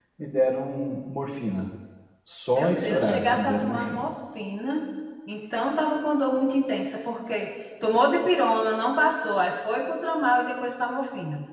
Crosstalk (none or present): present